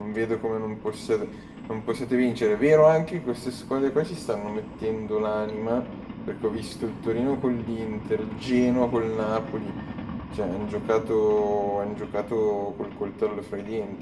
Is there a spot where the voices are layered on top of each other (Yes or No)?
No